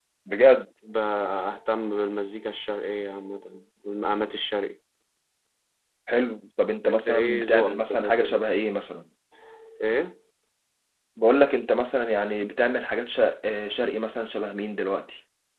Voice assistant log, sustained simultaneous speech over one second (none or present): present